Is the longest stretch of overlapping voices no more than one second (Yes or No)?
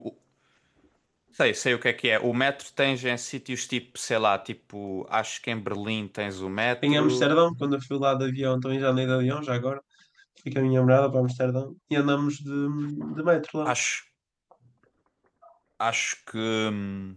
Yes